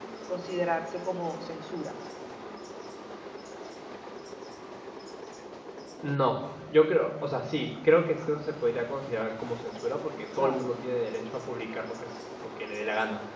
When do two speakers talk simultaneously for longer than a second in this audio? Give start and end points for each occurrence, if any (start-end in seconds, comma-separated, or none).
none